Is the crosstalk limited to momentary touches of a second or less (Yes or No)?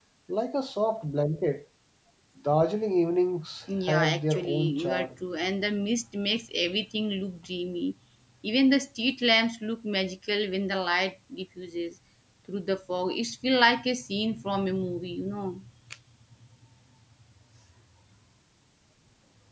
No